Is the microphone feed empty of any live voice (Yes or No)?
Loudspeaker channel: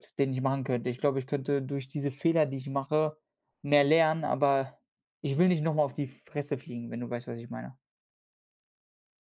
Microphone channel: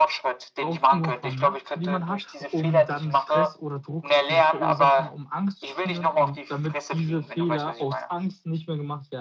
No